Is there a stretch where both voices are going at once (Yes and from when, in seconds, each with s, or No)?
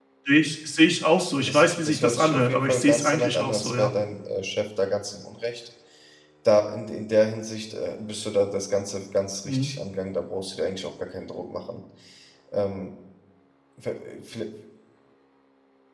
Yes, from 1.3 s